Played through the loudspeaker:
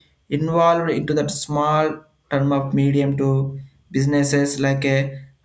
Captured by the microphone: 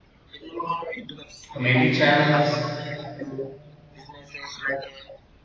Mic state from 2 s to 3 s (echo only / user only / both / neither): both